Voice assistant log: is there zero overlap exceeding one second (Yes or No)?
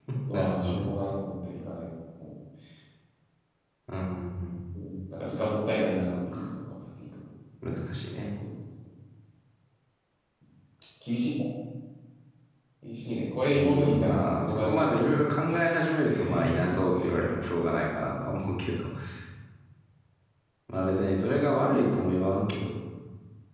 No